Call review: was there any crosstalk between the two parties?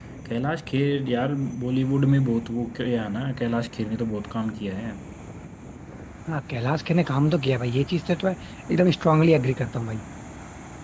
No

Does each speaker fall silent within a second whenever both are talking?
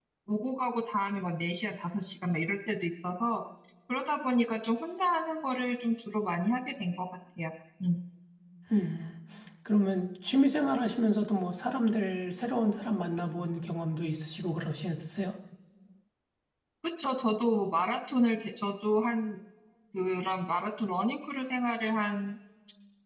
Yes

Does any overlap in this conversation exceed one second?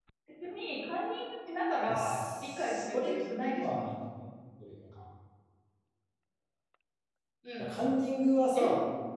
Yes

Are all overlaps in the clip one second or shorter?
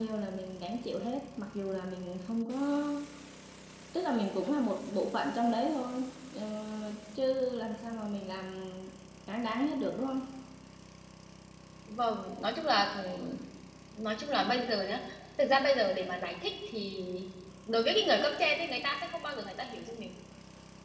Yes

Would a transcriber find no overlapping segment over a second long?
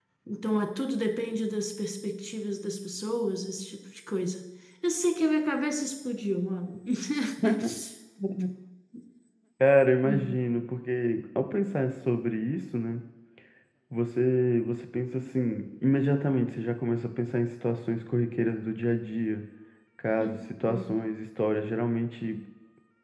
Yes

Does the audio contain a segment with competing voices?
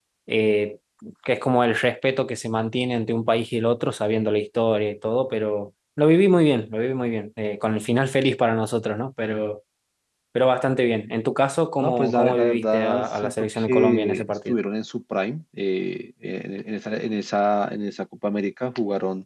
Yes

